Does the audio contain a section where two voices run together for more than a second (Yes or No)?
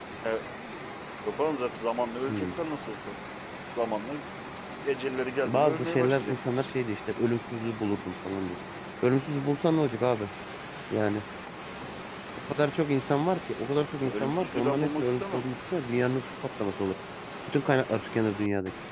Yes